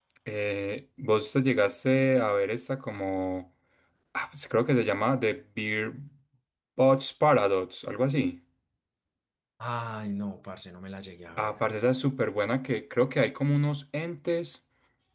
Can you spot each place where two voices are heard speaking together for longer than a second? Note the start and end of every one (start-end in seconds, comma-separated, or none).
none